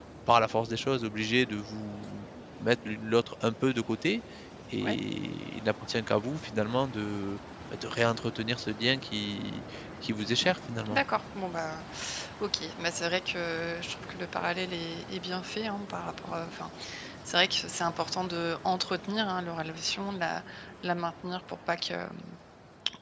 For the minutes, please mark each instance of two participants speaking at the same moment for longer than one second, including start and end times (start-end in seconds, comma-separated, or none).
none